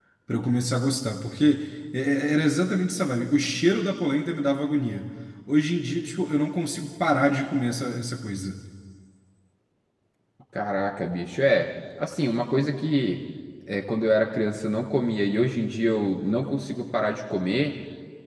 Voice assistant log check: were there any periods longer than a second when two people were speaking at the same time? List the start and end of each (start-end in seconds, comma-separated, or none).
none